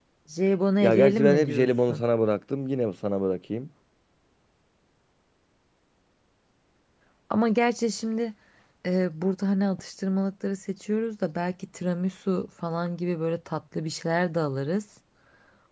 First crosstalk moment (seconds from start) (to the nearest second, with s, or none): 1 s